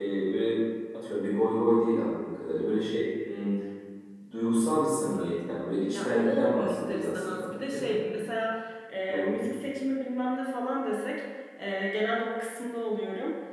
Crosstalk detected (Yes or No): Yes